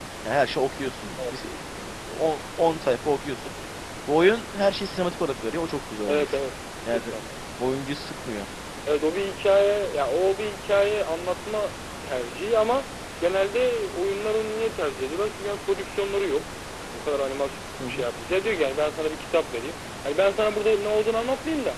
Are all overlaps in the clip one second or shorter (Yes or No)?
Yes